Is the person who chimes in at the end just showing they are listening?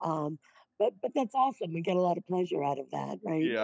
No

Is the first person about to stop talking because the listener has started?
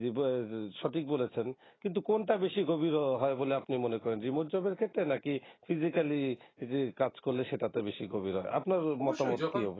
Yes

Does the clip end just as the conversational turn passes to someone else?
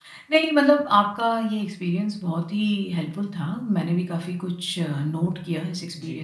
No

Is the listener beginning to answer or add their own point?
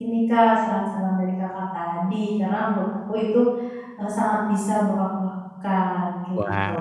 Yes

